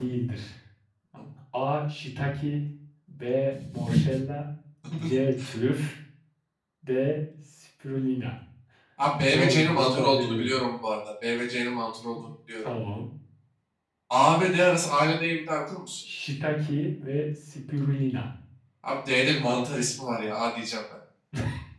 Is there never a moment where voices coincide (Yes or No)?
No